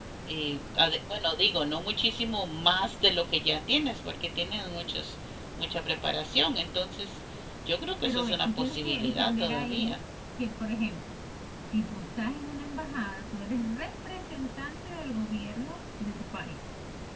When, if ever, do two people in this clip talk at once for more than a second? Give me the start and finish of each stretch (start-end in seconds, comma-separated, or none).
8.0-10.0